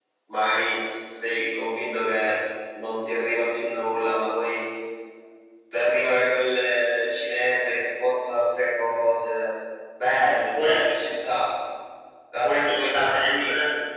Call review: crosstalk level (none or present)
present